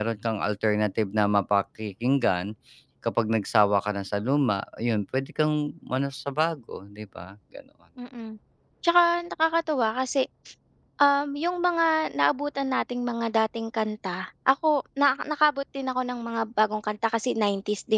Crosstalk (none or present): none